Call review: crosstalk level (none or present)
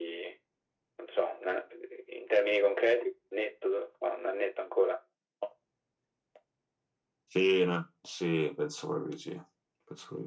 none